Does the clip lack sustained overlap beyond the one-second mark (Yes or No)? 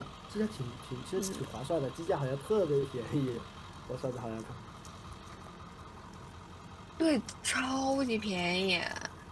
Yes